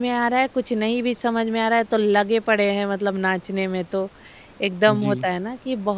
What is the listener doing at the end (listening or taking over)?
listening